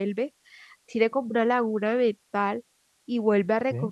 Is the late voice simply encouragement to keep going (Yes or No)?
Yes